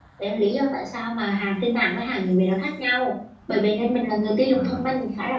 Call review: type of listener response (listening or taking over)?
listening